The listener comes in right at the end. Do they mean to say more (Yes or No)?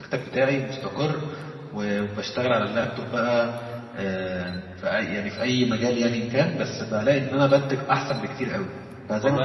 Yes